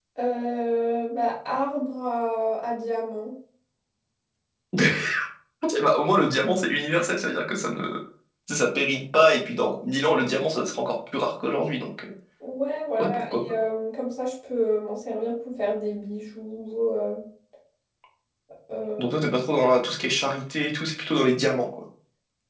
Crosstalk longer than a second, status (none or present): none